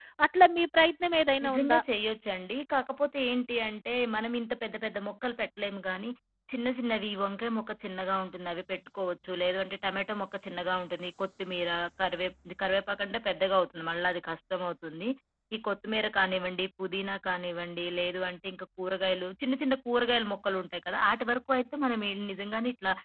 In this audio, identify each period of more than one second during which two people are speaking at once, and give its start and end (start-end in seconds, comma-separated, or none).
none